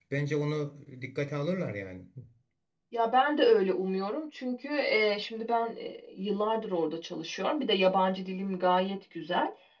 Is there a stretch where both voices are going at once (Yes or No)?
No